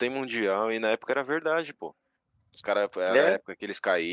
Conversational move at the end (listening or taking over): listening